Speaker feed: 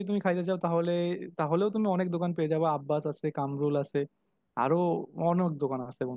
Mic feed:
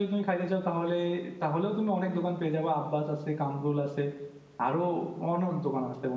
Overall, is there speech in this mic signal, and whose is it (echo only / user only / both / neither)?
echo only